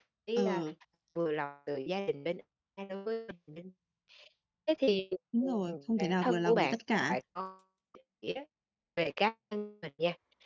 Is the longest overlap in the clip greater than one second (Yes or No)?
Yes